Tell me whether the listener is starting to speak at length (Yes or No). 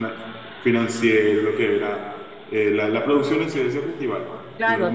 Yes